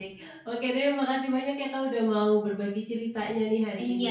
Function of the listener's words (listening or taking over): taking over